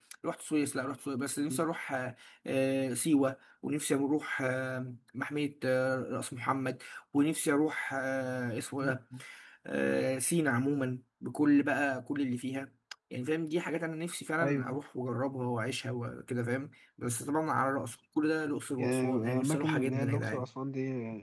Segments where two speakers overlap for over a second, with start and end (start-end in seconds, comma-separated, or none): 18.8-20.5